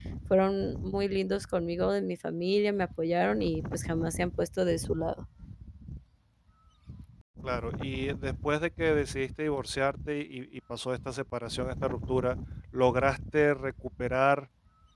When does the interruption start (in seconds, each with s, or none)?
none